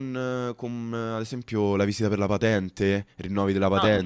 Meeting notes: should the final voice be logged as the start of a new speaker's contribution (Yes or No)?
No